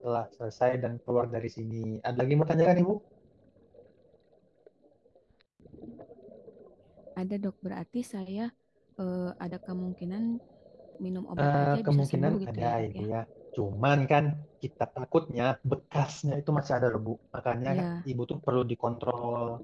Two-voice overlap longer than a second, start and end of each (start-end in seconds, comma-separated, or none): 11.4-13.0